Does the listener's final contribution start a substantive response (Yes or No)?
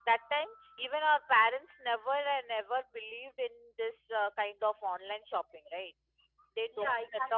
Yes